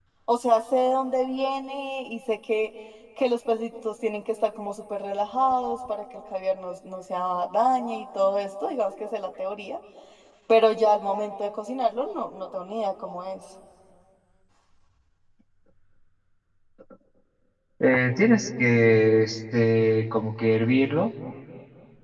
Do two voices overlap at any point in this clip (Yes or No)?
No